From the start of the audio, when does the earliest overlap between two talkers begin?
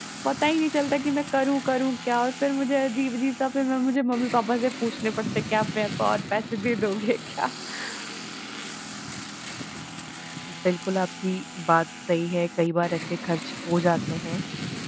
none

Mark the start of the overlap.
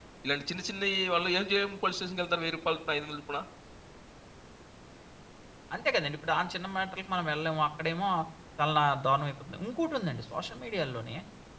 none

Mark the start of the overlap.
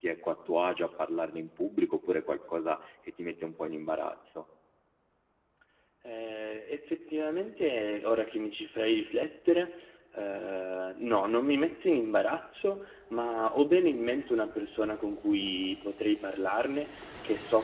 none

